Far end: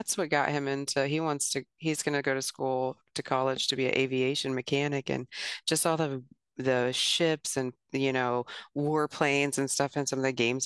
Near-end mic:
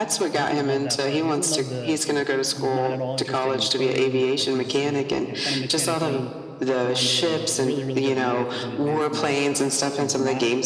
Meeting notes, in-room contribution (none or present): present